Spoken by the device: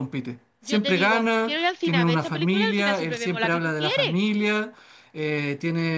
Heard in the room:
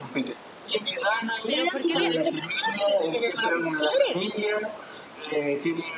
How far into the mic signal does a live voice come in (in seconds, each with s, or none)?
1.4 s